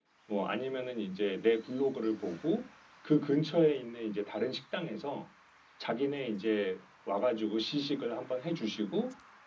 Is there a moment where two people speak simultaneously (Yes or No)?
No